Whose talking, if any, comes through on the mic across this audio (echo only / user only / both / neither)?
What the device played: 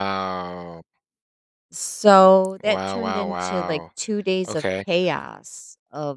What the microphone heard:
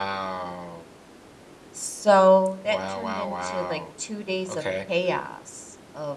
echo only